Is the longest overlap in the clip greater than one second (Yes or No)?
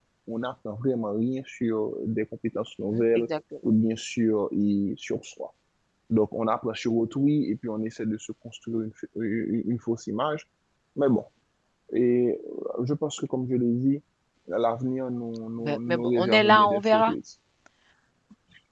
Yes